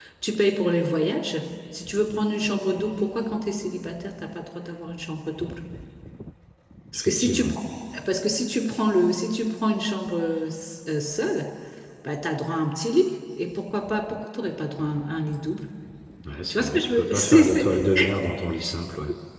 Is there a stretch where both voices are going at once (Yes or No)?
Yes